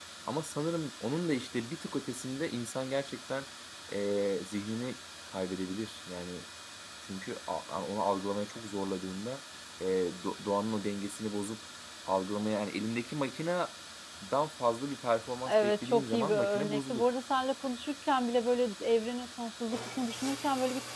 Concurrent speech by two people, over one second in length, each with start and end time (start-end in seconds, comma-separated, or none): 15.5-17.0